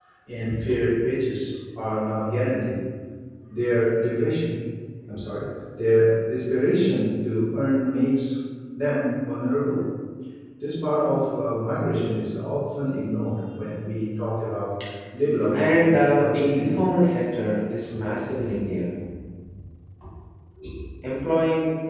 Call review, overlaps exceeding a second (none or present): present